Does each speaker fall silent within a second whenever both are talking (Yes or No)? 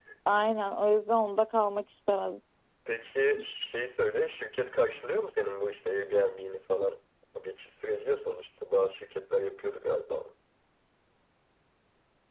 Yes